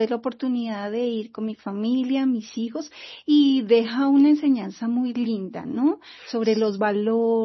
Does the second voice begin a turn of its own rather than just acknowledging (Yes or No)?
No